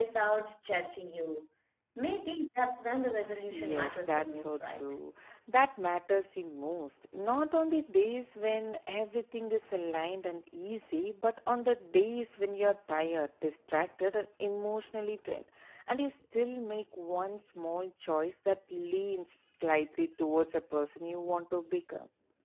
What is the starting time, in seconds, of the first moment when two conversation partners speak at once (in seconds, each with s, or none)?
3.5 s